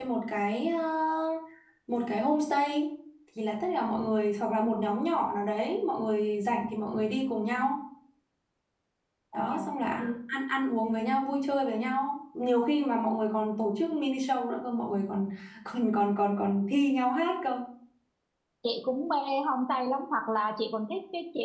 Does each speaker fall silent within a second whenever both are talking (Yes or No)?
Yes